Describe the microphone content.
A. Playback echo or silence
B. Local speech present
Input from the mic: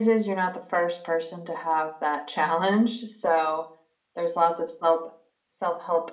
A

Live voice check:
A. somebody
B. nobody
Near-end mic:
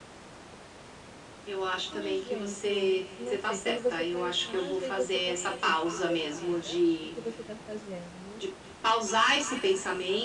A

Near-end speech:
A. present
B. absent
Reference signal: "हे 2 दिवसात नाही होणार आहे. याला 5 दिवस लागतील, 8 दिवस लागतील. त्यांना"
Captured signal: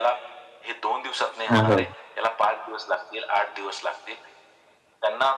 A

